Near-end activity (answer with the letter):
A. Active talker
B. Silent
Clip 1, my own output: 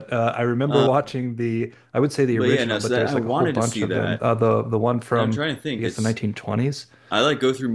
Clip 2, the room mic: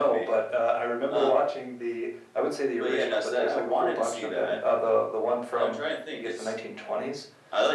B